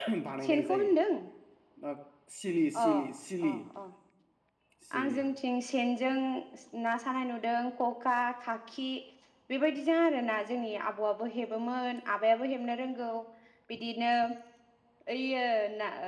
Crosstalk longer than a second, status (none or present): none